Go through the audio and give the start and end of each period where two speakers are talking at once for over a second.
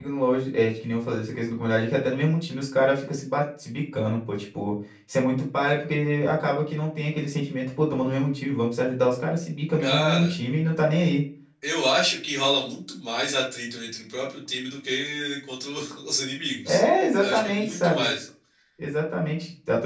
16.6-18.0

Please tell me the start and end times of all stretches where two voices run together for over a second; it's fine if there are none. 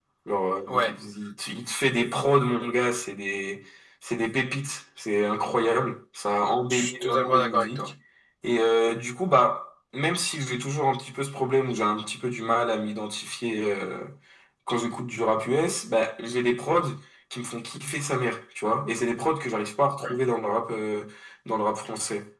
6.7-7.9

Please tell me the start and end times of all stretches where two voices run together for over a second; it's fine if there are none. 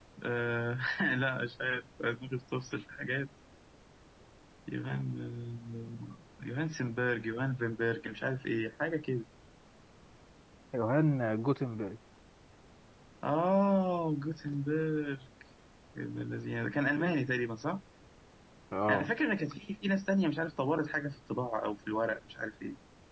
none

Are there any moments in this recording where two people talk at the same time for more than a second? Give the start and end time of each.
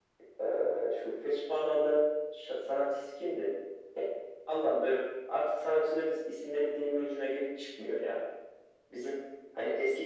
none

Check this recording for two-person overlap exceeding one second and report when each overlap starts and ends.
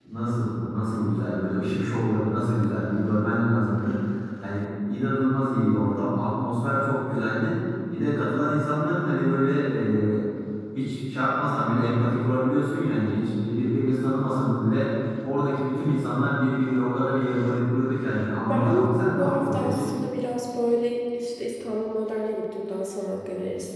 18.5-19.9

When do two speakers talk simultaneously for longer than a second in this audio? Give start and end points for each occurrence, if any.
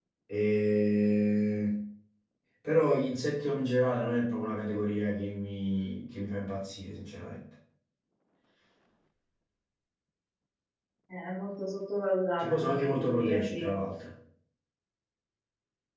12.4-13.7

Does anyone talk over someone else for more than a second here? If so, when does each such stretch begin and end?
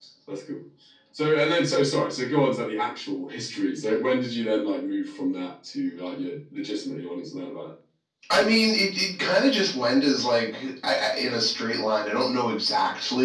none

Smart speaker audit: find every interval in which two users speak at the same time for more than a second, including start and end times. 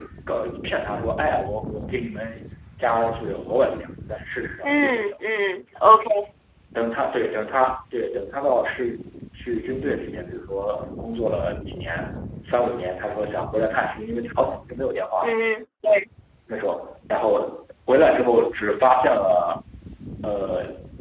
none

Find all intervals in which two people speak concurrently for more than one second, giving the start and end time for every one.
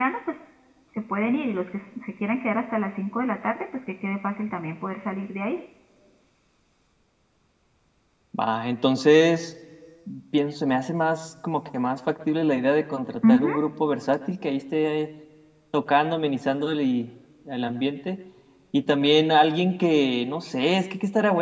none

